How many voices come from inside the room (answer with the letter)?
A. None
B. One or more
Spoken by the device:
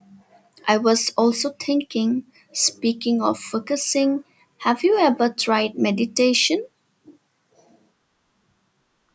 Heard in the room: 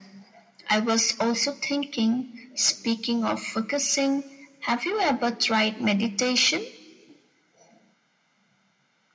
A